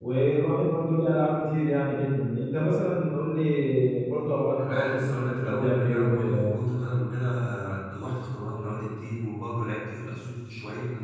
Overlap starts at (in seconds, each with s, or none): 4.6 s